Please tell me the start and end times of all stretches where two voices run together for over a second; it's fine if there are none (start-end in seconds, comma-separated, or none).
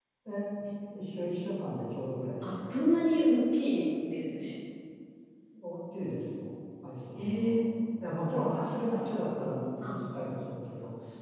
none